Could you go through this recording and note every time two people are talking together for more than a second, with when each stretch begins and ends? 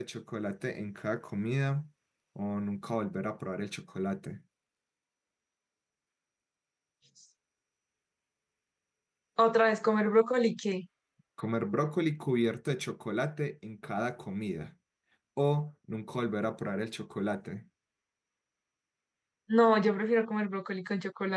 none

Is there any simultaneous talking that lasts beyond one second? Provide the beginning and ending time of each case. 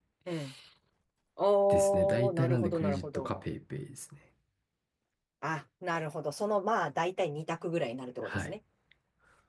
1.7-3.3

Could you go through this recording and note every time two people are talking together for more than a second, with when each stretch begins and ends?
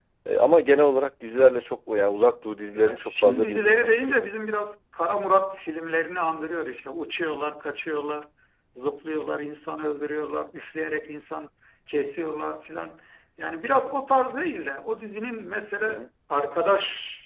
2.8-4.3

